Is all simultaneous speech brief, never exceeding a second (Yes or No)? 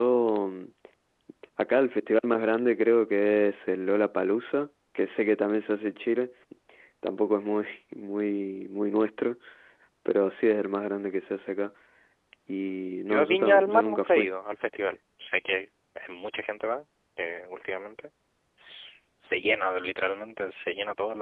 No